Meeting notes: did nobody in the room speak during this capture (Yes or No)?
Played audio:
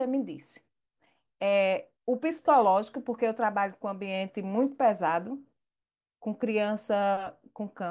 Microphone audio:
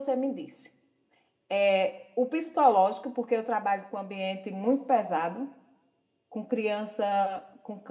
Yes